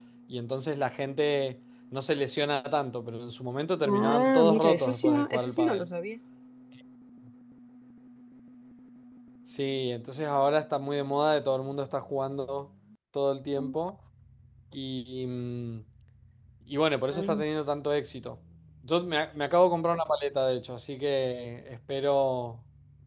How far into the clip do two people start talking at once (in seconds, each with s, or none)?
3.9 s